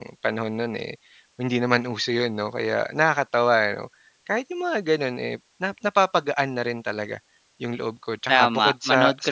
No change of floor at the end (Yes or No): No